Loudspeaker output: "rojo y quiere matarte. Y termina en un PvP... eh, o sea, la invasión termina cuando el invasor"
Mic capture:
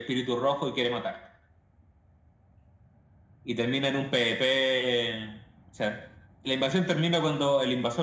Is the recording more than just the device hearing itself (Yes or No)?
No